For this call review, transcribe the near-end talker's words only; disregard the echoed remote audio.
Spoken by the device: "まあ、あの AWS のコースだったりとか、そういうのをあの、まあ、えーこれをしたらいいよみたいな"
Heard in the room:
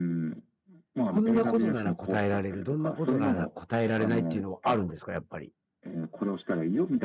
こんなことなら答えられる、どんなことなら答えられないっていうのはあるんですか、やっぱり？

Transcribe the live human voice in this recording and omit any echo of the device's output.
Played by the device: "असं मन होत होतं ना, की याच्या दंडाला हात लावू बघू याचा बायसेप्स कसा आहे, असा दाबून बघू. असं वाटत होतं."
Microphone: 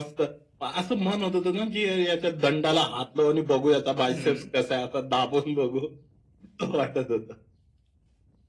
हं.

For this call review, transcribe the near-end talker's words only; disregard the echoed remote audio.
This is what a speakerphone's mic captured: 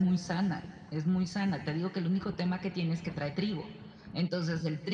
none

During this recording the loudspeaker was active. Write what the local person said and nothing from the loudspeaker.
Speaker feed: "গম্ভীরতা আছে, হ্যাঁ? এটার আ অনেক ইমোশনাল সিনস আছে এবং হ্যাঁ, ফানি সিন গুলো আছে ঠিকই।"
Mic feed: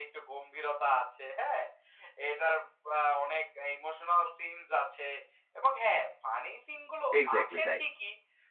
এক্সাক্টলি তাই।

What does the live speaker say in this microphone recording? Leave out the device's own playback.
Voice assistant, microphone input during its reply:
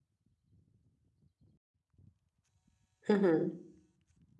Mhm.

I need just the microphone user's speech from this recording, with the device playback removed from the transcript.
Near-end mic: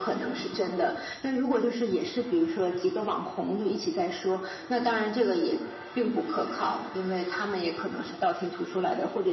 none

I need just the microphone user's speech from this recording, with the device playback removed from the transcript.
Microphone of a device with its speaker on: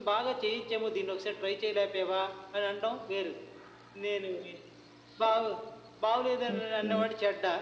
ఓకే.

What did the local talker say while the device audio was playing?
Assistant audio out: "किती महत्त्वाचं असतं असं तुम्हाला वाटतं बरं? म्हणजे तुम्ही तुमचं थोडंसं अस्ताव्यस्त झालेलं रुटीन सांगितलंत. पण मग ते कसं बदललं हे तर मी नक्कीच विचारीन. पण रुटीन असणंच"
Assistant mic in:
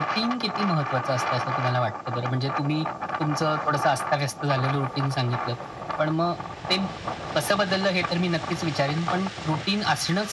none

